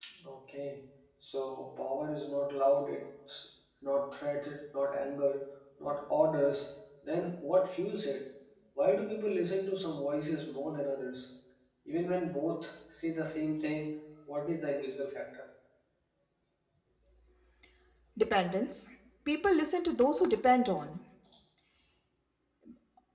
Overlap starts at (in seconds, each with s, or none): none